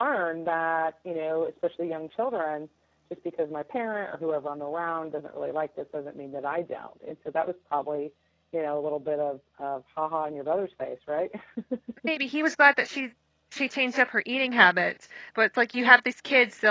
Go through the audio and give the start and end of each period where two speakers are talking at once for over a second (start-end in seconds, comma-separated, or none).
none